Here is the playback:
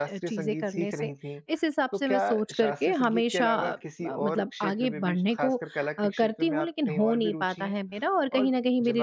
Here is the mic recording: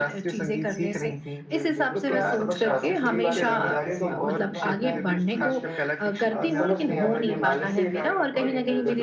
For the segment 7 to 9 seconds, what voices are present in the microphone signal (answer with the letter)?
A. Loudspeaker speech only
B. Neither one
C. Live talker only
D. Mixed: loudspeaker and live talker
D